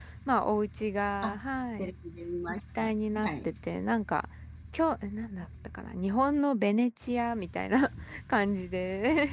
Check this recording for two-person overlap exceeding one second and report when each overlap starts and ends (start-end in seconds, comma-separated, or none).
none